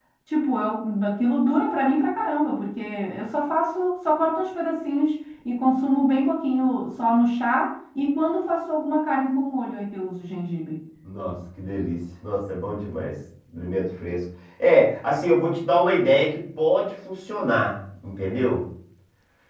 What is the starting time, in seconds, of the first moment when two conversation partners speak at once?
none

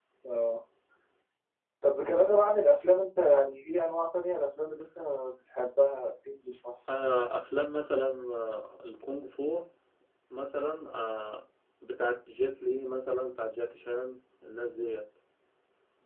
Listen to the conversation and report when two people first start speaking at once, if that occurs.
none

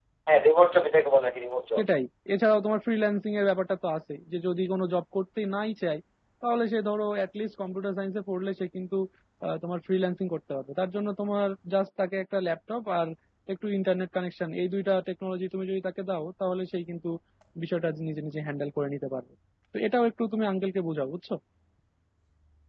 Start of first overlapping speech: none

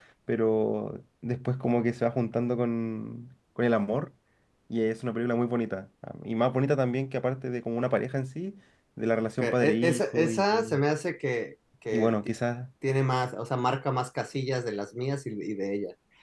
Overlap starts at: 9.4 s

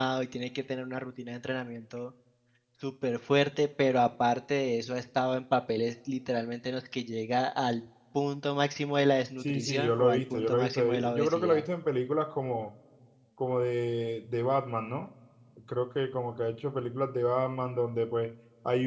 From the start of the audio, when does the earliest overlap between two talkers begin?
9.4 s

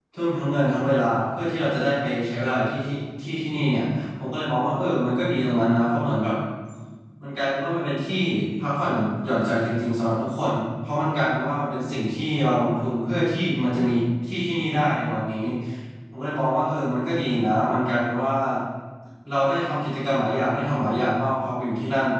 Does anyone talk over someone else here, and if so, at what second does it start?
none

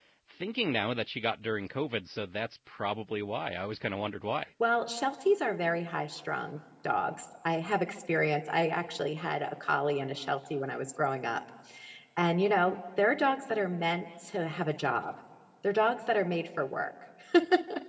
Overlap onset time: none

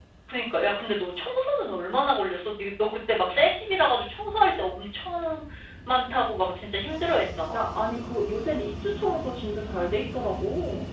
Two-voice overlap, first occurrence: none

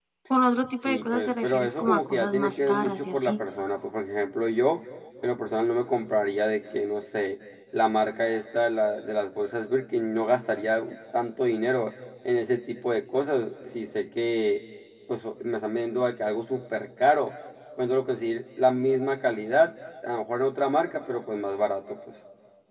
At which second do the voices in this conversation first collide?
0.8 s

